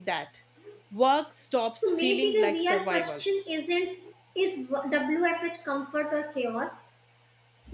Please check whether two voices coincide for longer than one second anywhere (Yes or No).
Yes